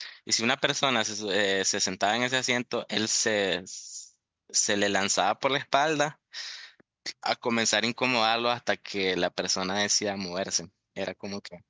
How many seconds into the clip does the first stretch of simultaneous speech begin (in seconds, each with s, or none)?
none